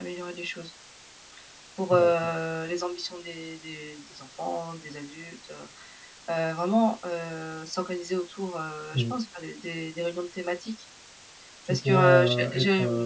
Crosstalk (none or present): present